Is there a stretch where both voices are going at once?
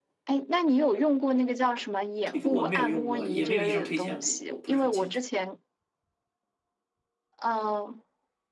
Yes, from 2.3 s

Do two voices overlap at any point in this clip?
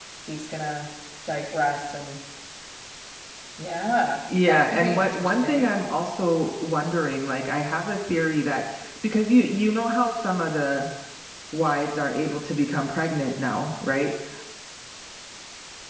Yes, from 4.5 s

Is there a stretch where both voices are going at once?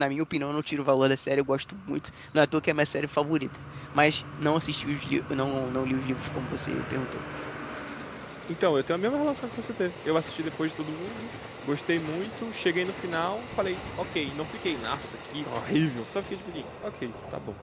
No

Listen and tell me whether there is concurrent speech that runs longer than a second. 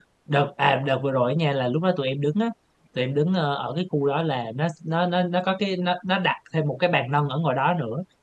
No

